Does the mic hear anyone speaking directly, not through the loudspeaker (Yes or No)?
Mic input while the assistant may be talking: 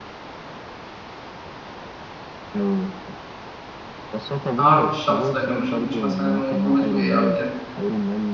Yes